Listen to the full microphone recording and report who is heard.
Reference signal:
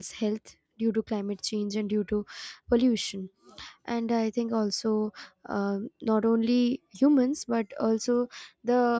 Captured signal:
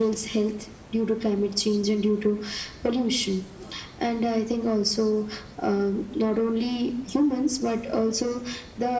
echo only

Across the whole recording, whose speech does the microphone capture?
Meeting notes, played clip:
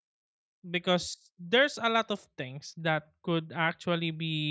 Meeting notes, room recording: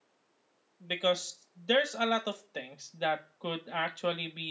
echo only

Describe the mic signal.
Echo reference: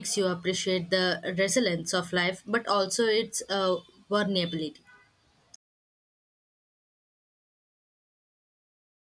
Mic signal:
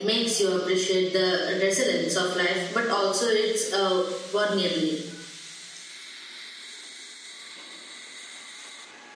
echo only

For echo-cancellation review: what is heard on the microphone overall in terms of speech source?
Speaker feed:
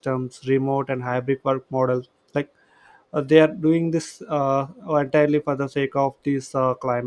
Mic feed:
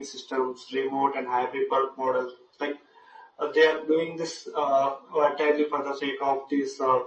echo only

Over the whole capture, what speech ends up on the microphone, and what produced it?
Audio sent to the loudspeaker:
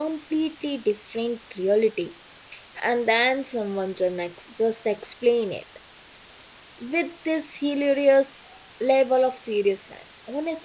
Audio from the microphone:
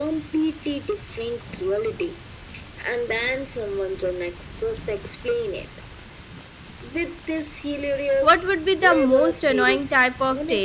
both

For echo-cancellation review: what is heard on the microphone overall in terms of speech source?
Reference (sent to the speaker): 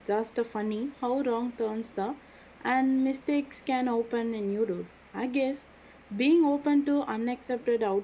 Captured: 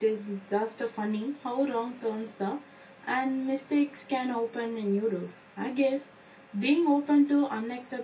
echo only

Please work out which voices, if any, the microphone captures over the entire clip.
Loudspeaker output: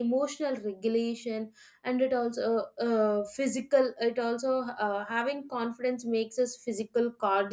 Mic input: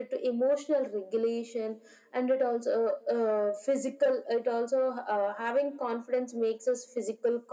echo only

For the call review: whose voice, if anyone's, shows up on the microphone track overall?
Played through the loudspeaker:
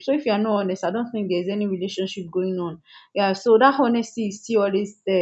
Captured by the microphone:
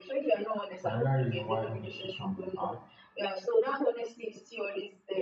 both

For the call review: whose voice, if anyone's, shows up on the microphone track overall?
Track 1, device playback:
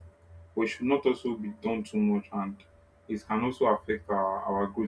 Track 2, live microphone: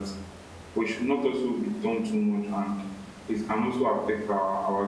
echo only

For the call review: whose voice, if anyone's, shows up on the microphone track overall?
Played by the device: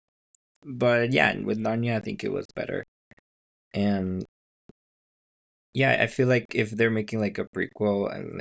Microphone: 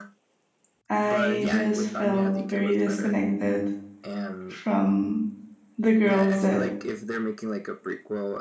both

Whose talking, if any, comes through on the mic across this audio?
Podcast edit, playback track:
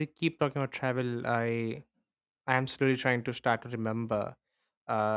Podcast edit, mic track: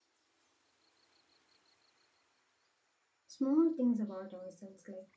user only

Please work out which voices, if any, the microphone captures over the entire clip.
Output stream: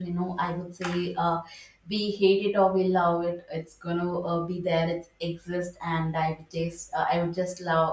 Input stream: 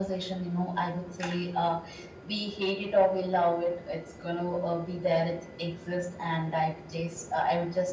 echo only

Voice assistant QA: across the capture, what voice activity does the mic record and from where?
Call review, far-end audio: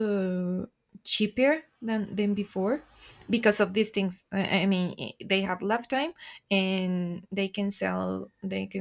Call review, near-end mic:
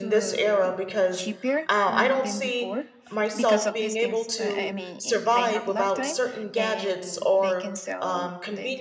both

